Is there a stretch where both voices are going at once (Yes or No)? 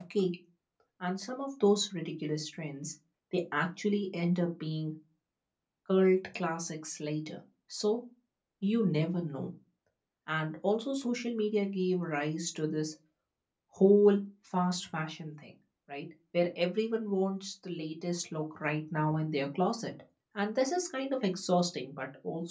No